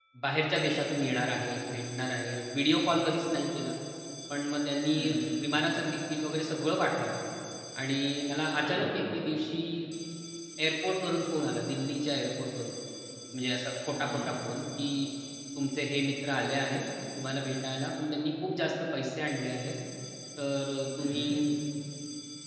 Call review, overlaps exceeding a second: none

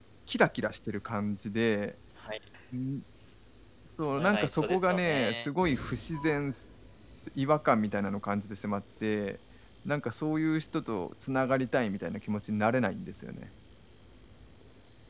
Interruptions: present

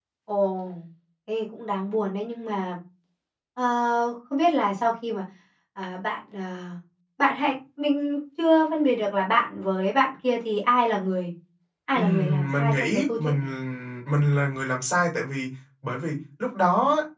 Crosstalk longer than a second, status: present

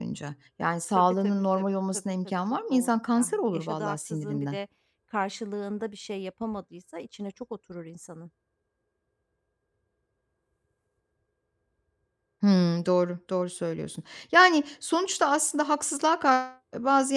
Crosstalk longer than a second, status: present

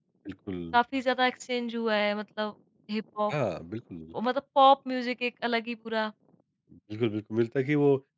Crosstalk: none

